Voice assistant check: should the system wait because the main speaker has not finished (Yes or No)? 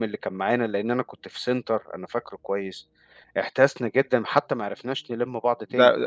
No